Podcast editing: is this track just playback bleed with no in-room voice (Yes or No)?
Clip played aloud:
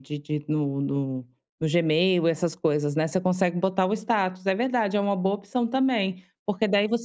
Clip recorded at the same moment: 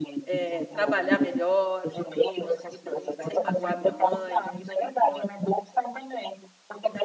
No